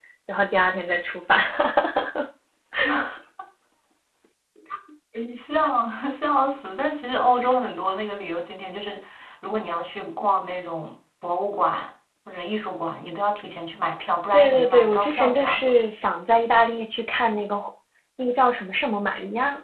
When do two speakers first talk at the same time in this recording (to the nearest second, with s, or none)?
14 s